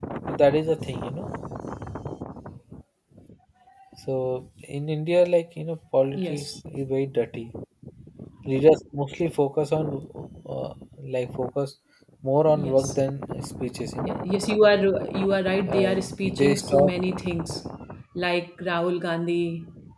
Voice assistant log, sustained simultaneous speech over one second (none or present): present